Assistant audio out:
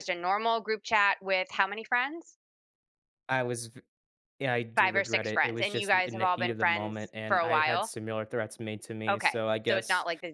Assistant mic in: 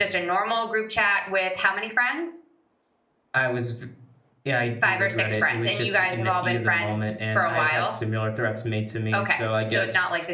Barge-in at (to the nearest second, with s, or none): none